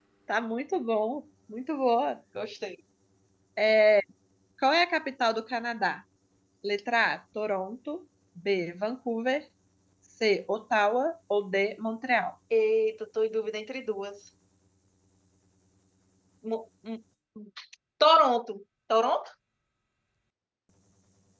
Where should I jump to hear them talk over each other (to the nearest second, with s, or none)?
none